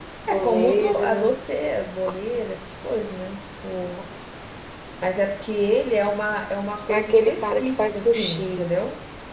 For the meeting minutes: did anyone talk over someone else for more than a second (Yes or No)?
Yes